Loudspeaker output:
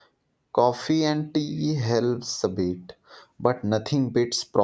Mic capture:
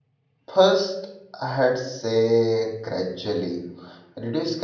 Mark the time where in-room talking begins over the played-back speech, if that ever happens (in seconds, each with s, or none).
0.5 s